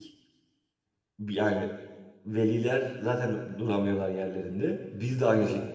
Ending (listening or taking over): listening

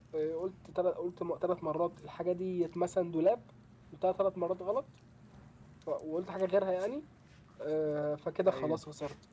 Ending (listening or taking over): listening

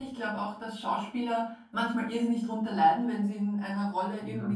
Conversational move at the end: listening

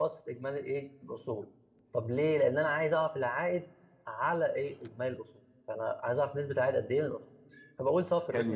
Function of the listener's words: taking over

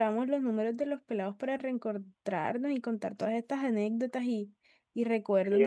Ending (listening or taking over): taking over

